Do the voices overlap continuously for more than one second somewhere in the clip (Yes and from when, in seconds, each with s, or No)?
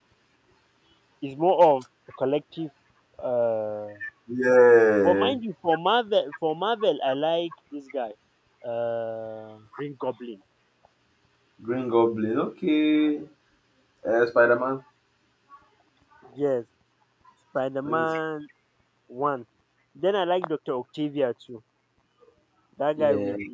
No